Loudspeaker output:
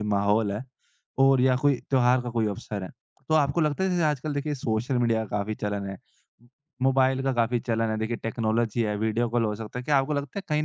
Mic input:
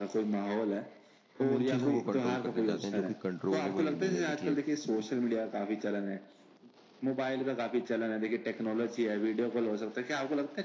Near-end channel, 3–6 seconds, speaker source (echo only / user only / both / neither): both